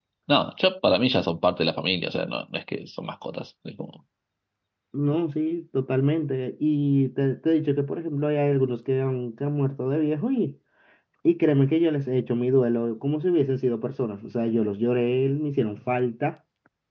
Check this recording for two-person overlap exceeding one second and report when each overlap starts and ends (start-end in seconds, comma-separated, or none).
none